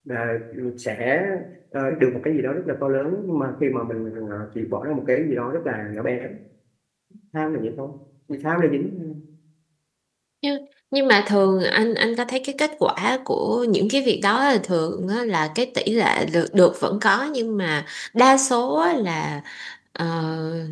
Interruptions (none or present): none